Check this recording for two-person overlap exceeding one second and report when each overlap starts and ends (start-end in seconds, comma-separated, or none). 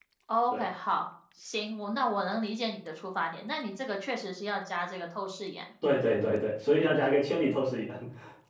none